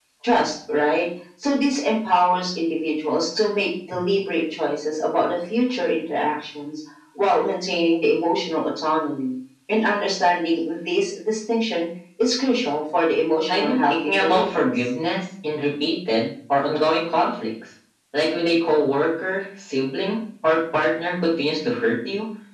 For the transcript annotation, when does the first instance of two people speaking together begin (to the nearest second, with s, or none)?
13 s